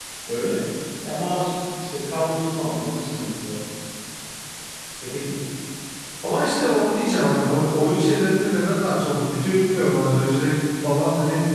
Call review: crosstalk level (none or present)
none